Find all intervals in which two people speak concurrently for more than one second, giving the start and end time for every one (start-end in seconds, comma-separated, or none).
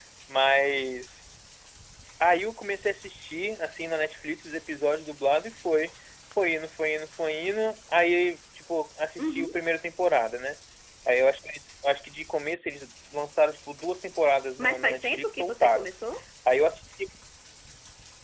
14.6-15.9